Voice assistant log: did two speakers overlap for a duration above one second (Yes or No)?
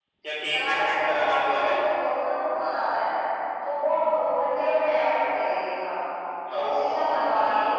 Yes